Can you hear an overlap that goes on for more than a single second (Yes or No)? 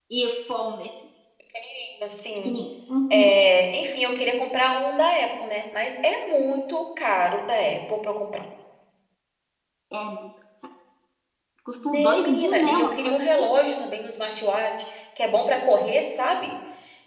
Yes